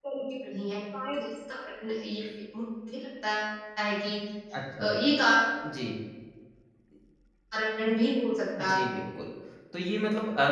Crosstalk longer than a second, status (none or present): none